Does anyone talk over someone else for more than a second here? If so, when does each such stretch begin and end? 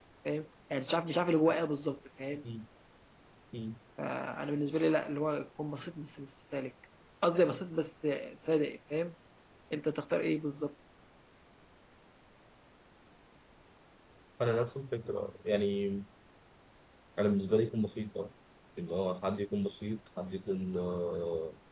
none

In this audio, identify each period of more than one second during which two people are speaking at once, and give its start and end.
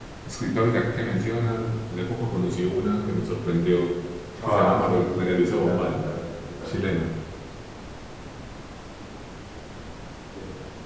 4.5-5.9

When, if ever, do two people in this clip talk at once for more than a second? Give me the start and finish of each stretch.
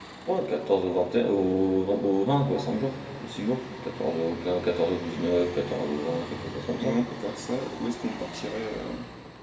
none

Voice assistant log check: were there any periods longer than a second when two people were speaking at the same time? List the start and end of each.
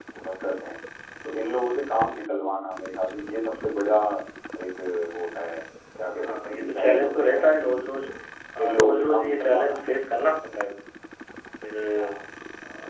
6.2-7.7, 8.6-9.8

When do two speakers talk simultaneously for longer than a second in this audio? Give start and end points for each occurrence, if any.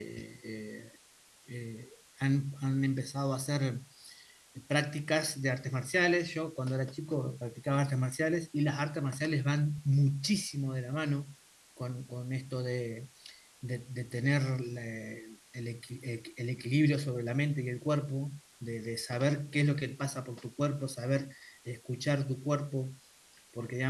none

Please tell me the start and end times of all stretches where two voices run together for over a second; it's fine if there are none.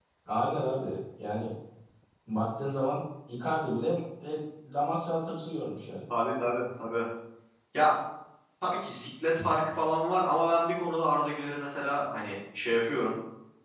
none

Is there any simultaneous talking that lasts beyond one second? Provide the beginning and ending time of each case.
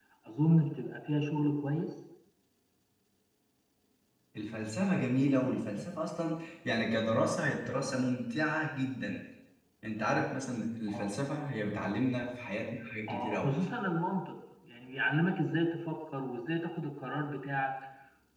none

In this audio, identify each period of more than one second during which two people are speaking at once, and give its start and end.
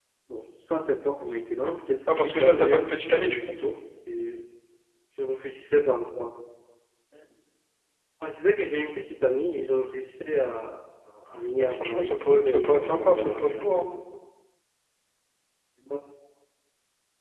2.1-3.6, 11.6-13.8

